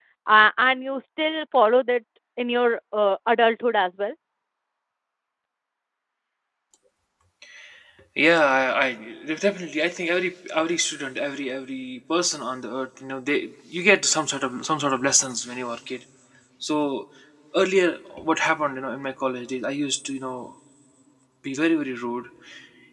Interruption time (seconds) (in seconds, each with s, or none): none